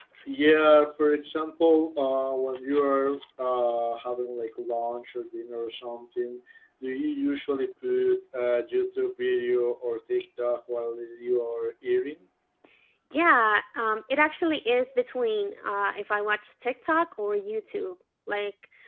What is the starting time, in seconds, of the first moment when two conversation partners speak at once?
none

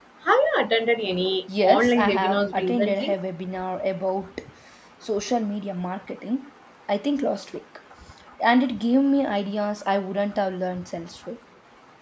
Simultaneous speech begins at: 1.5 s

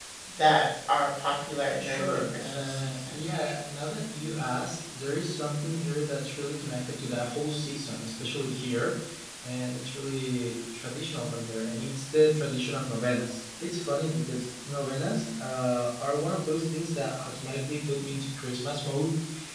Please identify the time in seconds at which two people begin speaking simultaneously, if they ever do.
1.8 s

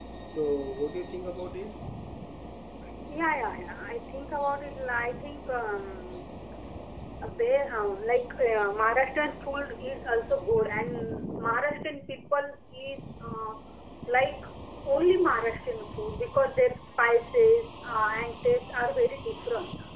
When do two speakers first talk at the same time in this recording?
none

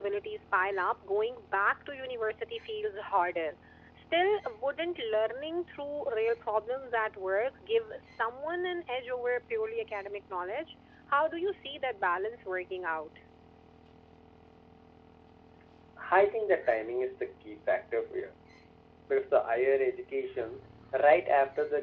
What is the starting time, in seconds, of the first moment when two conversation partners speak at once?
none

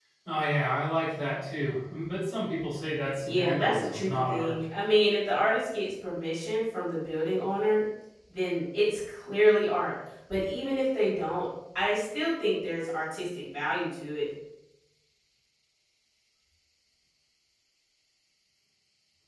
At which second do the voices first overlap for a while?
3.2 s

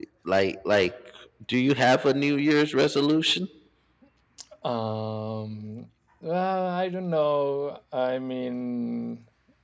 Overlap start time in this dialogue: none

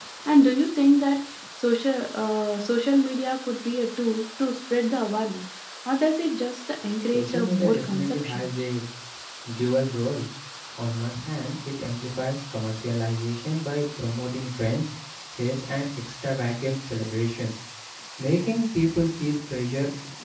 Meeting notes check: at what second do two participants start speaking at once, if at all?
7.1 s

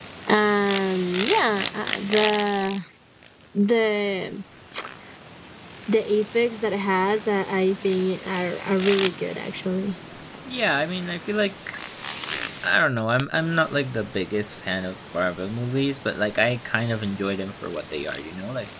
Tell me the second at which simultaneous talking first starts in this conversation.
none

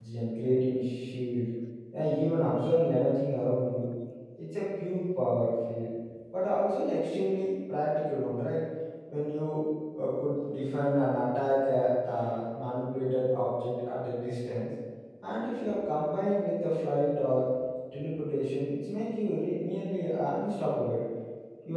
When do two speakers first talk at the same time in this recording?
none

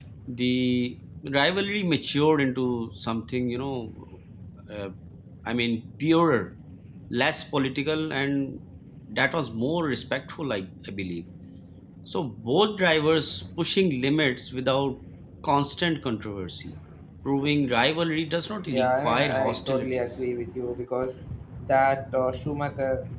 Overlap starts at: 18.7 s

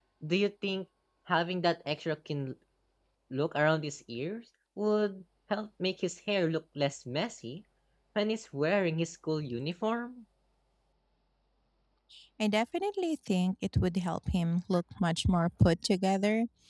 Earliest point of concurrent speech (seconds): none

